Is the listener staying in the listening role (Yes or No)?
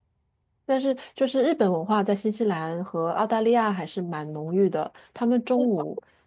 Yes